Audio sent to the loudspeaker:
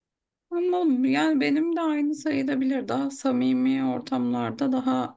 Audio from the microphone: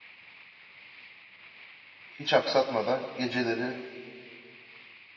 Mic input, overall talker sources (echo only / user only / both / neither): user only